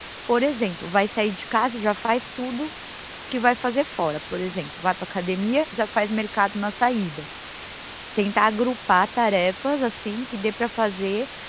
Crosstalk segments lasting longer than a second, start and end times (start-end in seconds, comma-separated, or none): none